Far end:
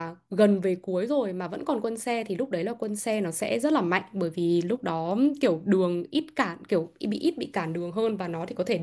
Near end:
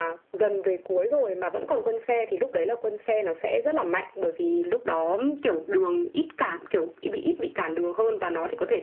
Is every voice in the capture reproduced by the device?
Yes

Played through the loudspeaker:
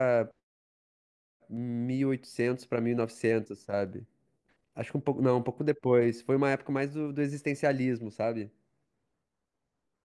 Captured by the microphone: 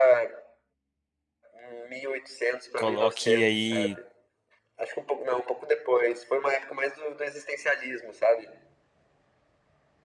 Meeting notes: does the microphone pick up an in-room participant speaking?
Yes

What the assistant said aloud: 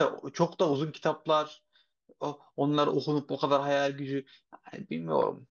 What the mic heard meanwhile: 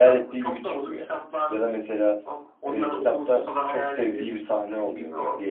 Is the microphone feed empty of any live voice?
No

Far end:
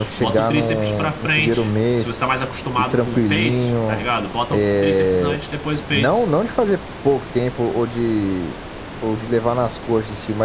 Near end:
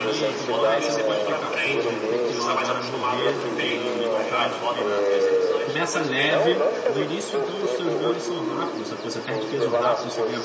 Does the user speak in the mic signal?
Yes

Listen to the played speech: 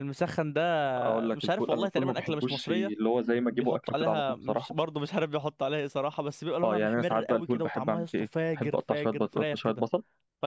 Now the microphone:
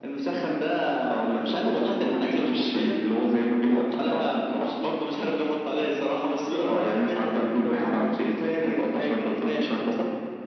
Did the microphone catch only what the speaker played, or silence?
Yes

